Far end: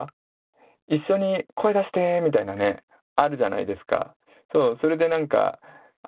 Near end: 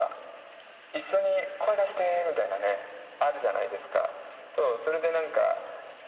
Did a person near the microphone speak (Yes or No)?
No